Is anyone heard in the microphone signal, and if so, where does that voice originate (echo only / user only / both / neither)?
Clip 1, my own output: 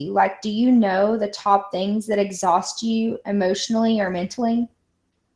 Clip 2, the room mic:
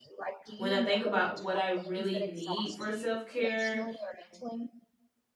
both